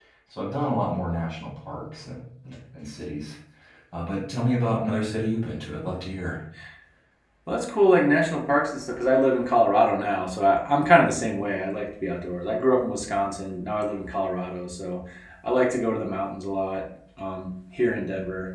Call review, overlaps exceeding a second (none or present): none